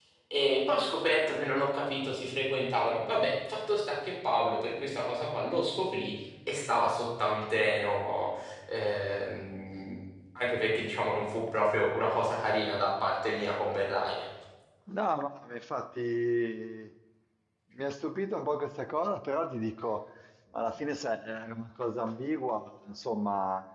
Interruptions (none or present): none